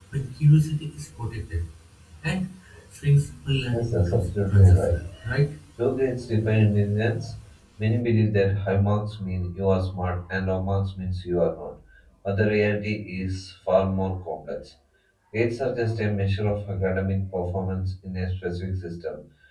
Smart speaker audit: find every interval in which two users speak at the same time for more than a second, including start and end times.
3.7-5.0

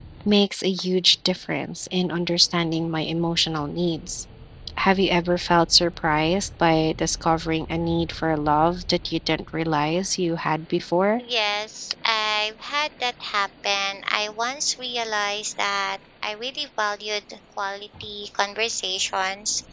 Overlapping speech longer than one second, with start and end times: none

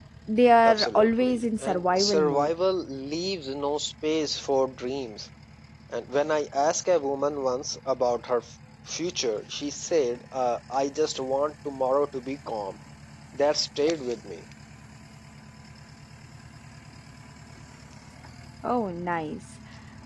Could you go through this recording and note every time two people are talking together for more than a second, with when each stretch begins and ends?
0.6-2.5

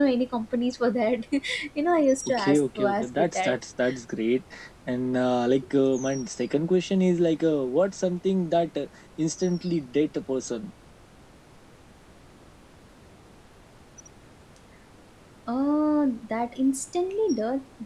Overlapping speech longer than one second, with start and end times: 2.3-3.5

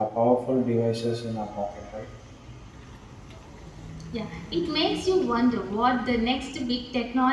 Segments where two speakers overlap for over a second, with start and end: none

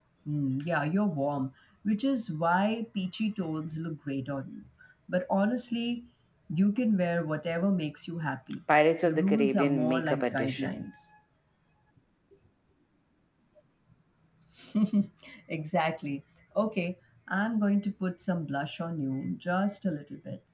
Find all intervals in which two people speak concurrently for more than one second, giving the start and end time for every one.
9.0-10.8

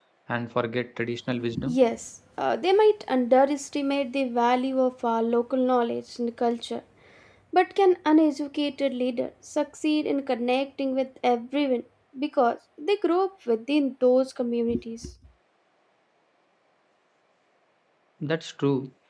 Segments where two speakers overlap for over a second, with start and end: none

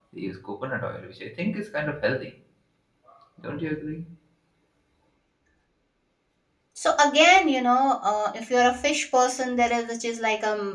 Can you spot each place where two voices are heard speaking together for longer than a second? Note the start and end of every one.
none

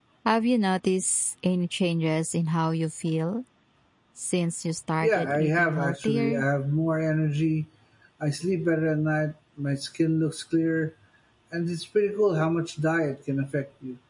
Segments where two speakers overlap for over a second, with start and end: 5.0-6.4

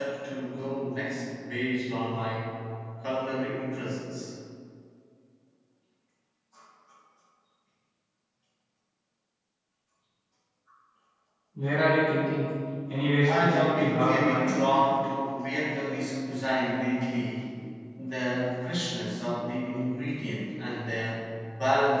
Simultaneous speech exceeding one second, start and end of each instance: 13.3-14.6

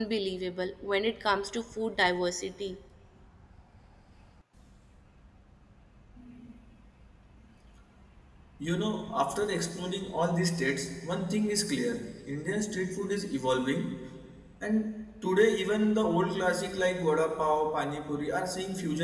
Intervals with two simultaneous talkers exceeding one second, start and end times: none

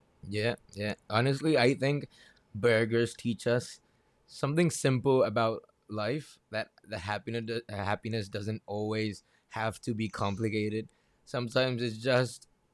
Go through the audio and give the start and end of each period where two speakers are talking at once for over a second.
none

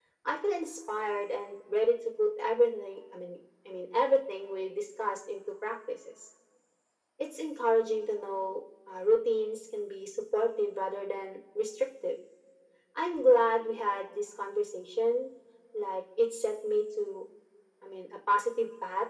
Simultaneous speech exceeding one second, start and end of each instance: none

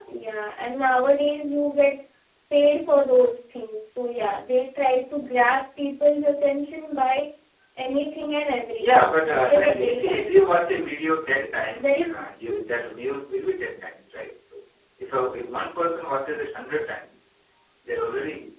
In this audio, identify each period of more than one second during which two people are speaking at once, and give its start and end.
8.8-10.5

